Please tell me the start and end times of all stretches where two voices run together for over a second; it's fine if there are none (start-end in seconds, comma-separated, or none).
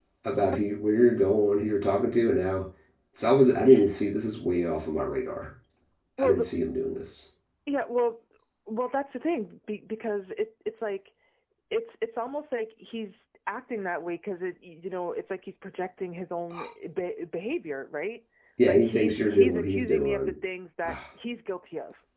18.6-20.3